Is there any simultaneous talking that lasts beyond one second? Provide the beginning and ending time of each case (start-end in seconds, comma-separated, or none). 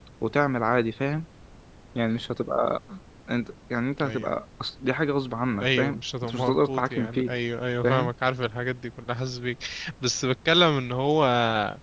5.6-7.3